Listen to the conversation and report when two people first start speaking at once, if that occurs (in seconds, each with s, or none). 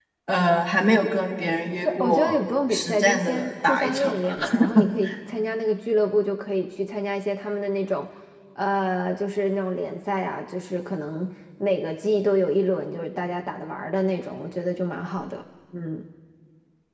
1.9 s